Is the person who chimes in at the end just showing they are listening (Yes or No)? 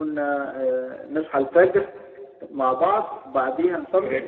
Yes